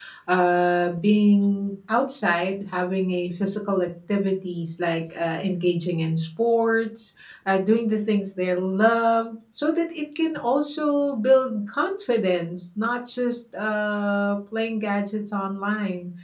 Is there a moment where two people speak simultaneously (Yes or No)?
No